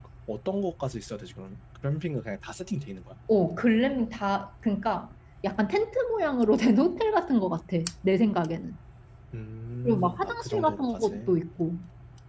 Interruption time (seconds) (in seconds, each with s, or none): 9.8 s